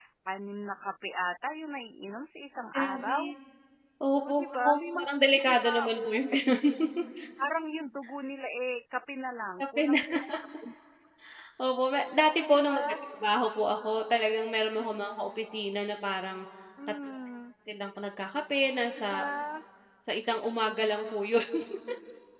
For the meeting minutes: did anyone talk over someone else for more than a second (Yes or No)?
Yes